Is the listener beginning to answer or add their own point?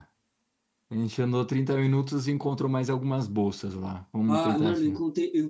Yes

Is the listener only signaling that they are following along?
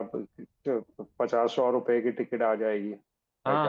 No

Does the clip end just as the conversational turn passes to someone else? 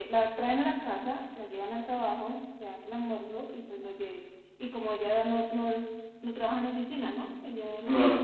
No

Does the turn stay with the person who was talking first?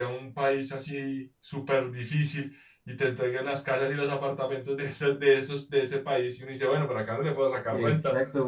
No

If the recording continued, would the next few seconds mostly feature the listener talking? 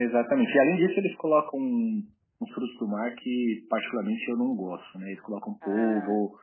No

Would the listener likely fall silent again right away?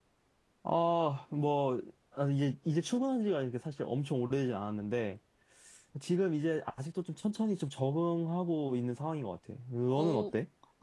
No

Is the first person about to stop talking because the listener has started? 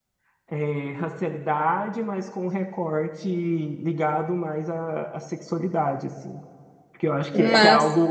No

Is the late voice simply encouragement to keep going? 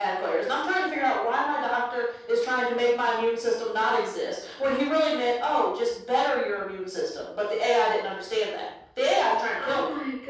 No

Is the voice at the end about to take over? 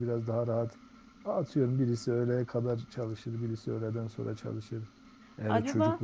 No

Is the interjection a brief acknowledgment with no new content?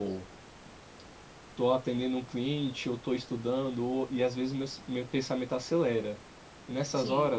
Yes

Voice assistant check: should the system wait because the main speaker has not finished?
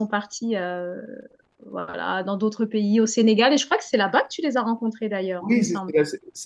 No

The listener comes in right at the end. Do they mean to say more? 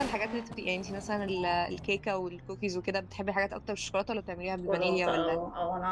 Yes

